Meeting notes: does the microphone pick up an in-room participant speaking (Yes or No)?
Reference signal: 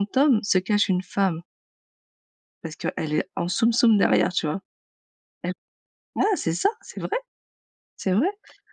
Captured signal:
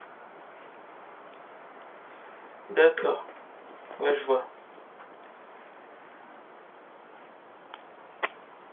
Yes